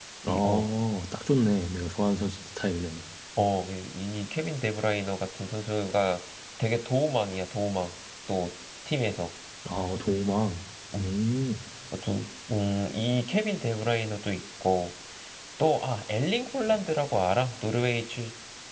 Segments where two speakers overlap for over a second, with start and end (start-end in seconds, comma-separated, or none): none